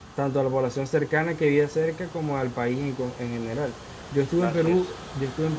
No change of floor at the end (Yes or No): Yes